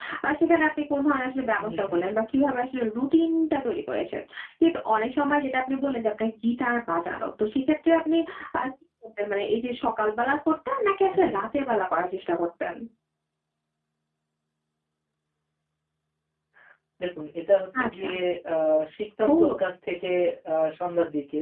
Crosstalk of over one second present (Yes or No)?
No